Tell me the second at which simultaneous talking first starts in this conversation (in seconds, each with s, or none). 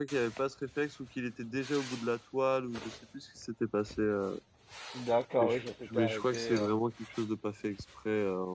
5.4 s